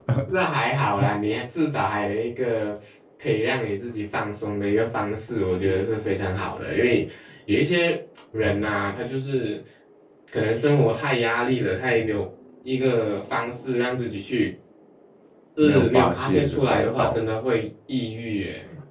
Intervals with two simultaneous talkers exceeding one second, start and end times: 15.6-17.2

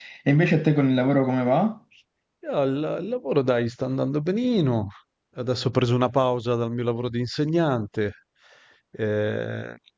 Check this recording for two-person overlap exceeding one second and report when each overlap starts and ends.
none

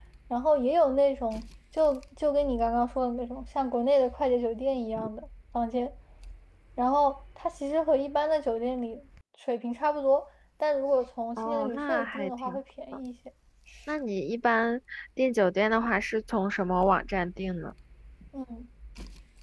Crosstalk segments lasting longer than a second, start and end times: 11.4-12.6

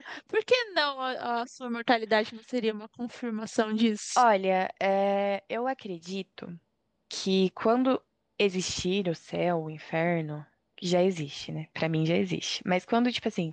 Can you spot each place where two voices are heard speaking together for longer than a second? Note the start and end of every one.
none

